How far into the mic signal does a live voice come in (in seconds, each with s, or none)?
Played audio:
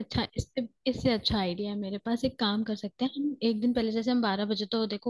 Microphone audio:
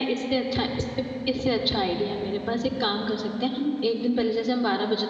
none